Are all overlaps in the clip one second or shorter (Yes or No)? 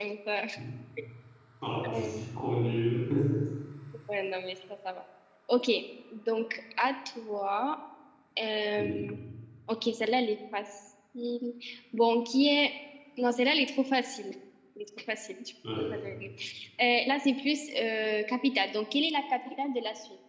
Yes